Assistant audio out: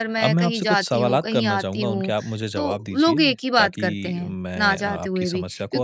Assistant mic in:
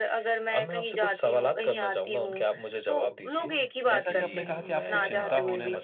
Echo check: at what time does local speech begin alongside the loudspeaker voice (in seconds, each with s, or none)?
3.9 s